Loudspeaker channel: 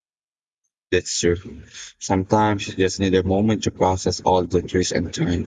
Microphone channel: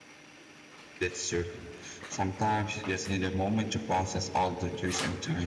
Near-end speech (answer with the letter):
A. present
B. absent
B